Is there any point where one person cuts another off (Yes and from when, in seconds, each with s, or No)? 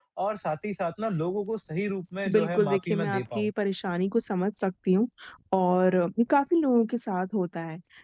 Yes, from 2.2 s